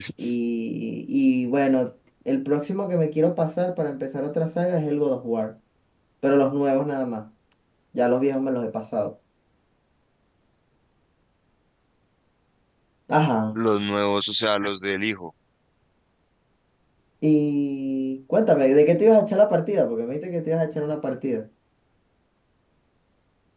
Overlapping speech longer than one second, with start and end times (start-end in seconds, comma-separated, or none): none